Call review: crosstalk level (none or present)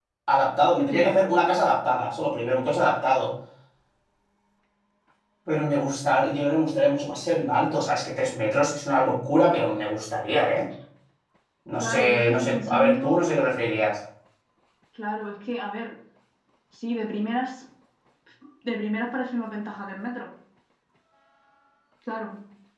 present